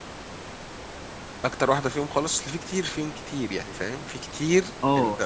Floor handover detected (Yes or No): Yes